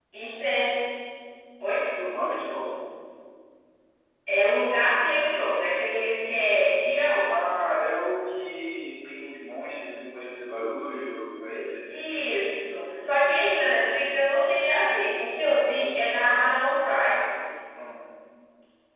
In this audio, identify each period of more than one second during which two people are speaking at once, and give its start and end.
none

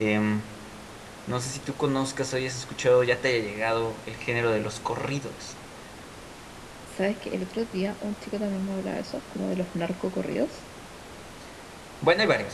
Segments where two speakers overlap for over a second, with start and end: none

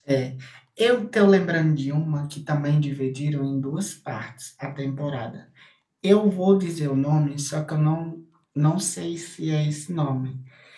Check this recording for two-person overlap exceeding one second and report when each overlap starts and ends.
none

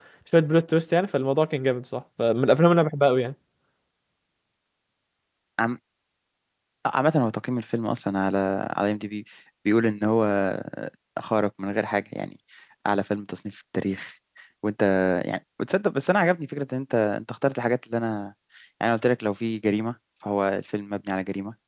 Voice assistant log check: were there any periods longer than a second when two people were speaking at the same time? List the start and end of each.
none

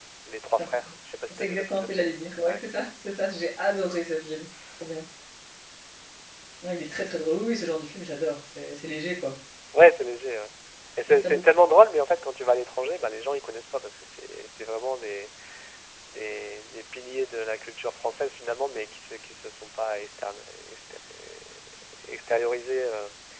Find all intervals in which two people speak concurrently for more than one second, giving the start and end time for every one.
1.3-2.6

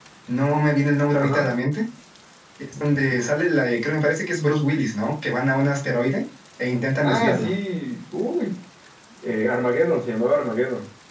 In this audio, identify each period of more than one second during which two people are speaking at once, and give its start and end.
none

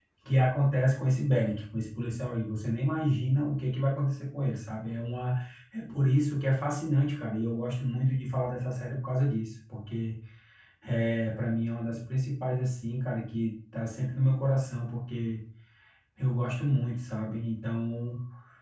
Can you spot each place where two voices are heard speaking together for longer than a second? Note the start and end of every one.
none

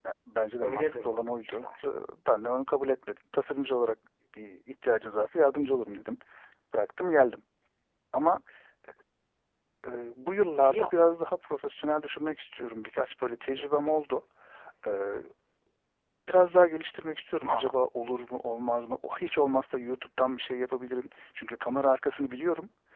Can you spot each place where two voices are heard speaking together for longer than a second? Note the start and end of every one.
0.6-1.9

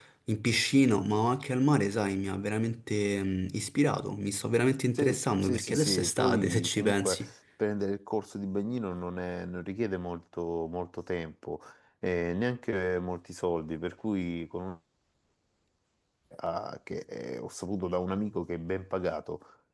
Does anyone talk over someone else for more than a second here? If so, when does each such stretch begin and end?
5.0-7.2

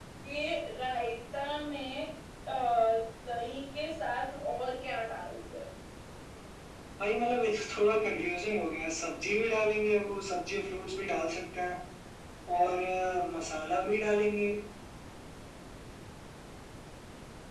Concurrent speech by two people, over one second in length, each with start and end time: none

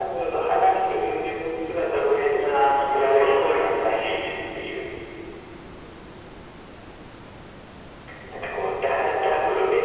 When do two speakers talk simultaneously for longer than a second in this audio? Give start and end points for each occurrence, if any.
2.3-4.0

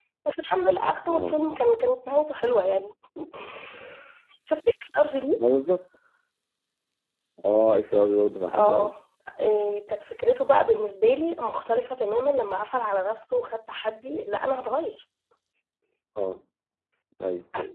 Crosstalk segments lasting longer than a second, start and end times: none

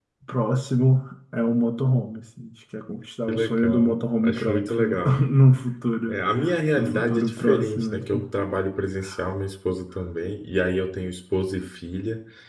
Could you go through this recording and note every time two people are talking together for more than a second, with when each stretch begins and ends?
3.3-5.2, 6.8-8.2

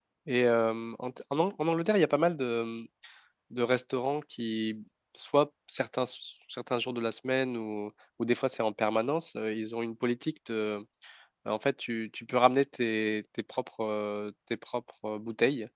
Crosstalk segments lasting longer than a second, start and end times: none

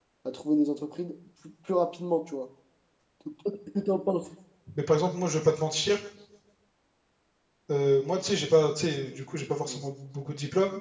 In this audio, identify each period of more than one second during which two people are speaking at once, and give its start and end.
none

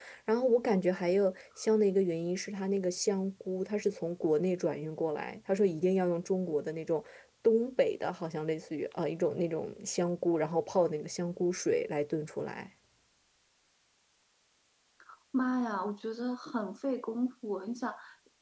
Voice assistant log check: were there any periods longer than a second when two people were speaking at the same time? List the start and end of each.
none

